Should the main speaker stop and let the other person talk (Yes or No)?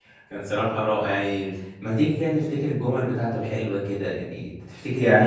Yes